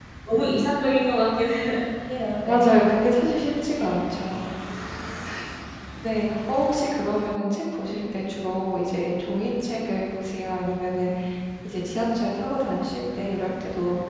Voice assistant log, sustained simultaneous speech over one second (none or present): none